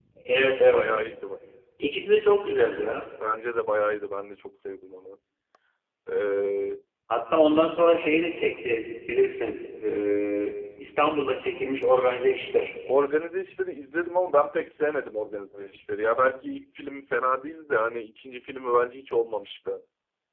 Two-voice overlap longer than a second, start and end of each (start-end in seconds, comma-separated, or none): none